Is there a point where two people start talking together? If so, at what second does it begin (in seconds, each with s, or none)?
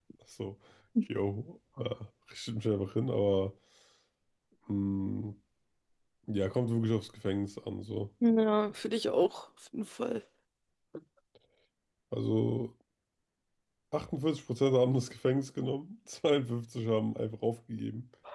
none